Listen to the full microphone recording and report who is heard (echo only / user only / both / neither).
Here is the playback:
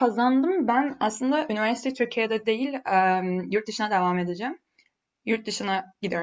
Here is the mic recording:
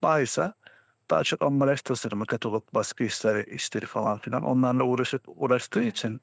user only